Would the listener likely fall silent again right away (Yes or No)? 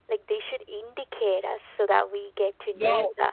No